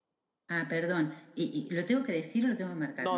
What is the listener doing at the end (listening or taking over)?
taking over